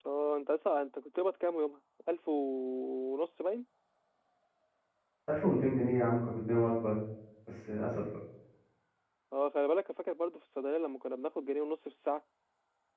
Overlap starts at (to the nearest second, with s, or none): none